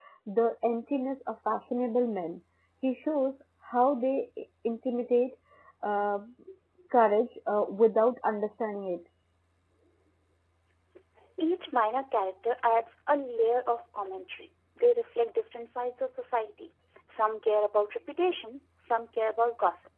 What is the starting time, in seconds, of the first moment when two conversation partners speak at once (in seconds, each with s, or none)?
none